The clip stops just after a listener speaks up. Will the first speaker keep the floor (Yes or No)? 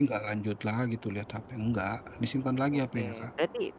No